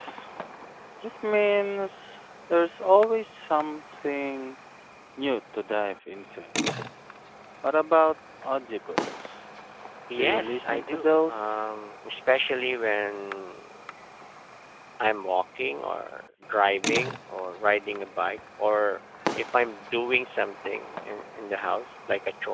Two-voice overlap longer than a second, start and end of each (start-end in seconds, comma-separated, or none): 10.2-11.5